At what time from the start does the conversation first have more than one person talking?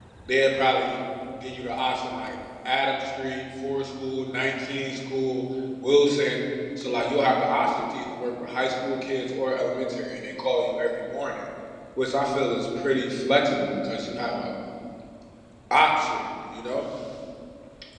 none

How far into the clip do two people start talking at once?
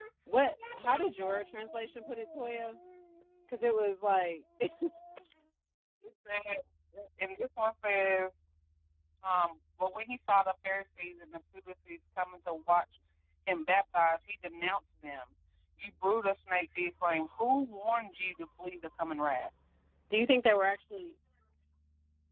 none

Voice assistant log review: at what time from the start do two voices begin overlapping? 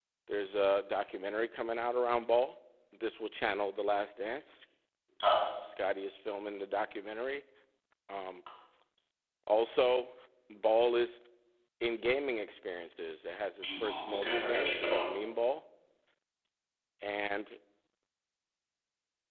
14 s

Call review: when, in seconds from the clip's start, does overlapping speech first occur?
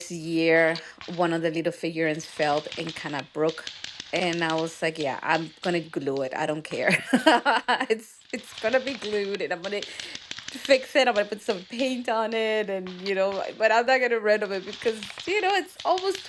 none

